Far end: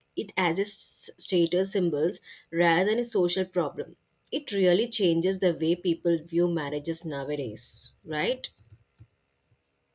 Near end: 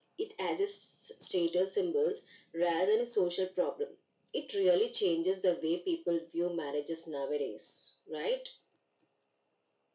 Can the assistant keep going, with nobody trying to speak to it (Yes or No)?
Yes